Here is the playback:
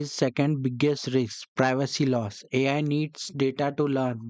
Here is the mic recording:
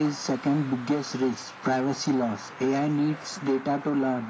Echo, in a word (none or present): present